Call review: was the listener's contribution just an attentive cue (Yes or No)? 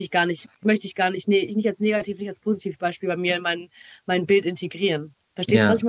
No